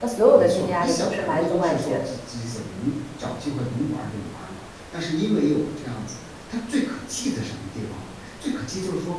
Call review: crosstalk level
present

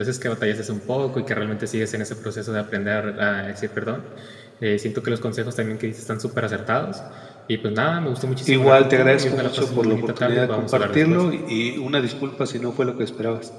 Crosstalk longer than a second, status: present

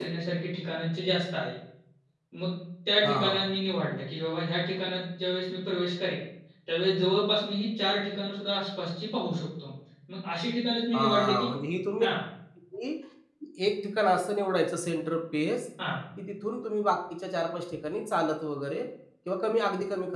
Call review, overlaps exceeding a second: none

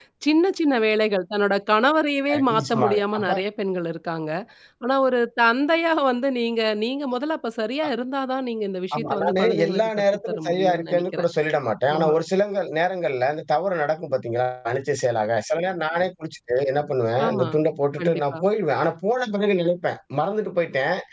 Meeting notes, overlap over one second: present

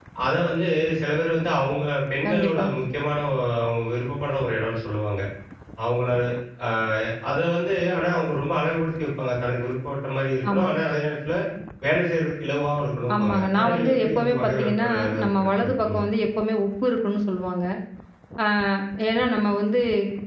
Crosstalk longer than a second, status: present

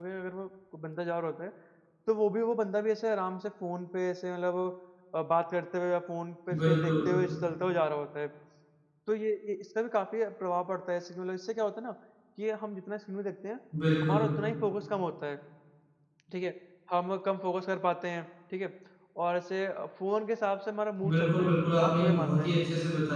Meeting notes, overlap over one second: present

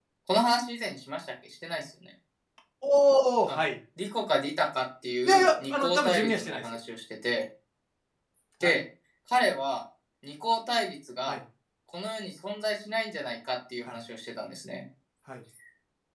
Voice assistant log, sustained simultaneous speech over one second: present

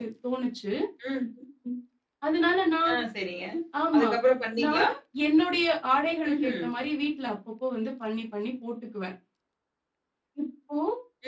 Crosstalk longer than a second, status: none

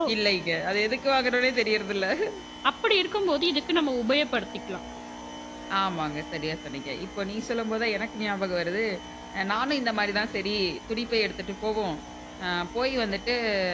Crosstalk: none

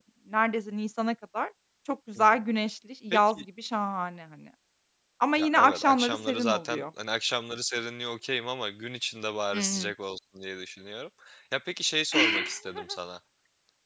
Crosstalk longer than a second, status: present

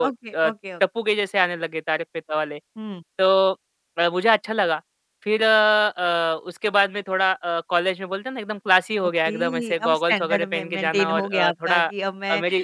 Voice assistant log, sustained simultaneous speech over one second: present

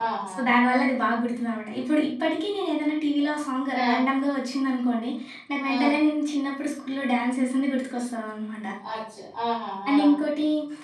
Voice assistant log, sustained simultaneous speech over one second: none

